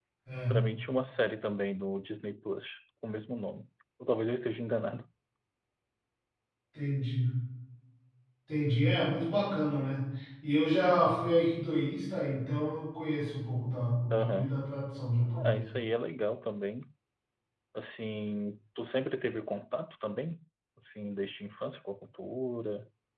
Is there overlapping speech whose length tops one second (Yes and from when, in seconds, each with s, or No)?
No